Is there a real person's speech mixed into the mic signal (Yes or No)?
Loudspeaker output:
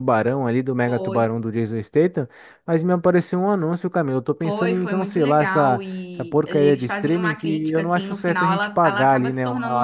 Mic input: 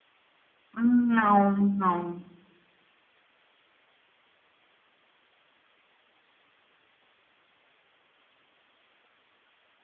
Yes